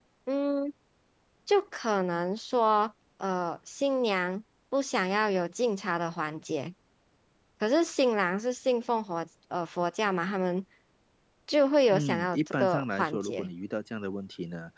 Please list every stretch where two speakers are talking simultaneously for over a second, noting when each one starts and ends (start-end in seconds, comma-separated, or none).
11.9-13.5